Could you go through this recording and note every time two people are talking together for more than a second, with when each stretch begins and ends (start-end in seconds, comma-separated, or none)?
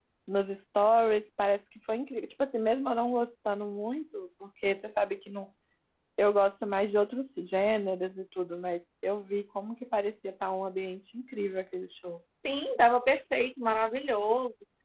none